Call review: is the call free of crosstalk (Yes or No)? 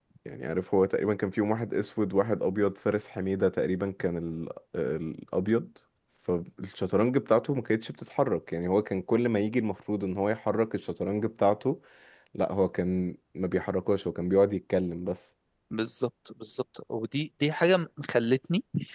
Yes